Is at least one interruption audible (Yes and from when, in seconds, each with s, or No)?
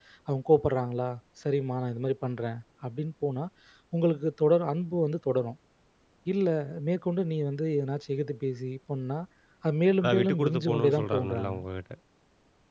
Yes, from 10.0 s